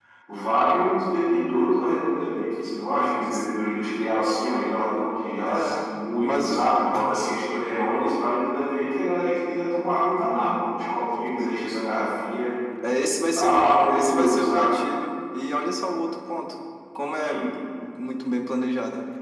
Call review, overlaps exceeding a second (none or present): present